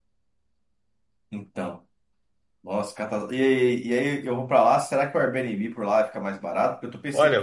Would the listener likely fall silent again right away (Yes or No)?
No